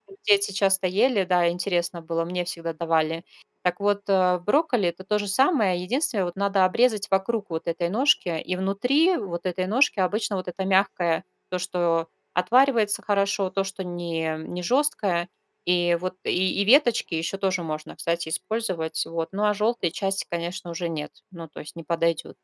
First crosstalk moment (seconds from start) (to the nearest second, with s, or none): none